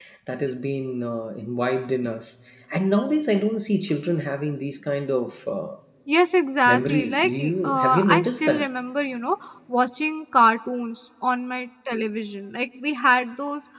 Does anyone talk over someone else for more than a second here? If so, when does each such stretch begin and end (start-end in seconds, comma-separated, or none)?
6.7-8.7